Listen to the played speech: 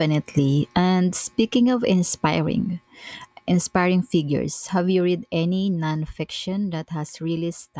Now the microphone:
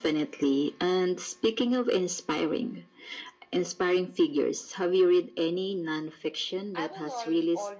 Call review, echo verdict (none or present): present